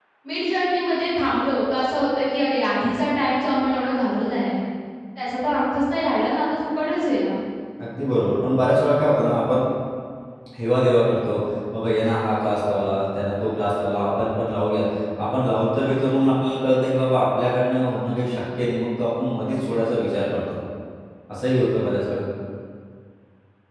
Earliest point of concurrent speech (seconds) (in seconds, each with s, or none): none